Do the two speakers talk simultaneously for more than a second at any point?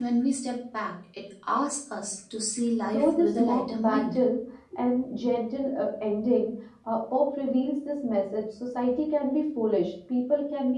Yes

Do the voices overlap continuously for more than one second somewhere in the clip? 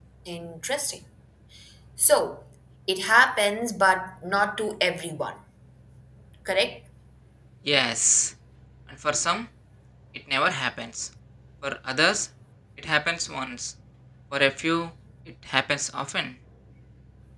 No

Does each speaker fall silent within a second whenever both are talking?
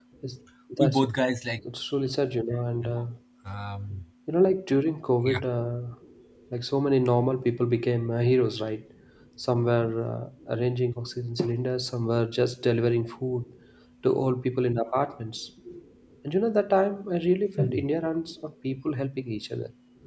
Yes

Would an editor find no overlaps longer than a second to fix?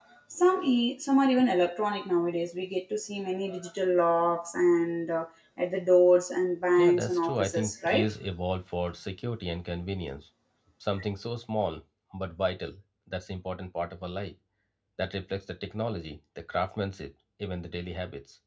No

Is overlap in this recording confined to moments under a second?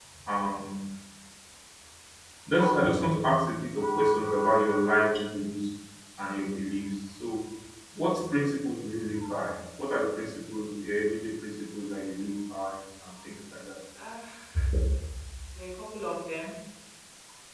Yes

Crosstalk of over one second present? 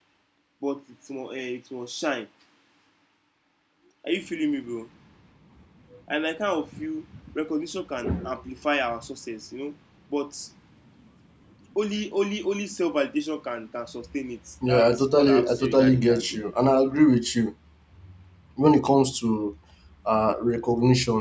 Yes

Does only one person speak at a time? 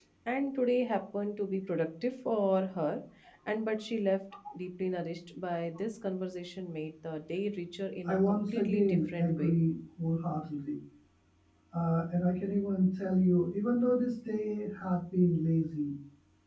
No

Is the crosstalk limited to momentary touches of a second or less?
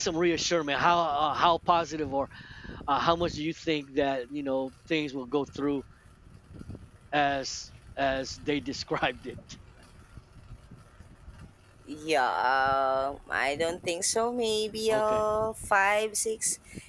Yes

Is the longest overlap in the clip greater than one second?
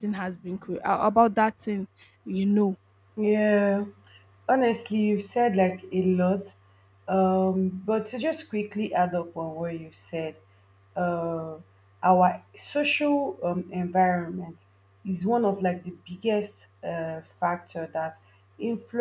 No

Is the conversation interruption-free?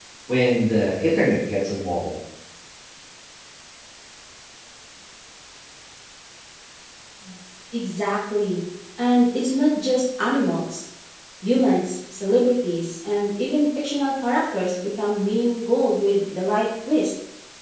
Yes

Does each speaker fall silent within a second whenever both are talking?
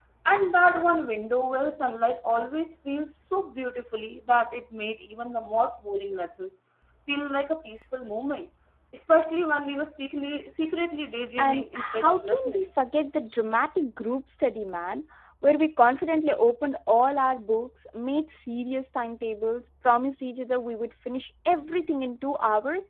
No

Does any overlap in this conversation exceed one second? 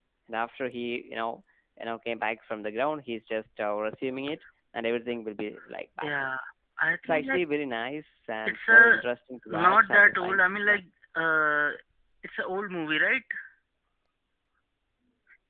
Yes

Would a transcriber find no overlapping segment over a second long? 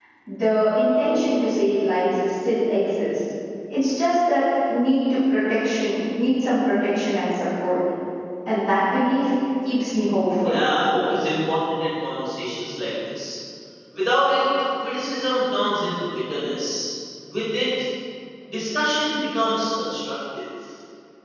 Yes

